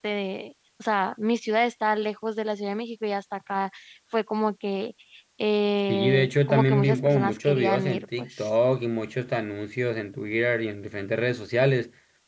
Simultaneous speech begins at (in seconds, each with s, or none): 5.9 s